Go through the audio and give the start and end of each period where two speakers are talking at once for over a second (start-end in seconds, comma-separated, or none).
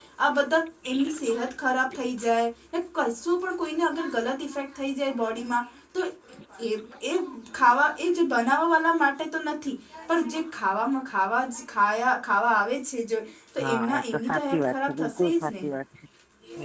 13.6-15.6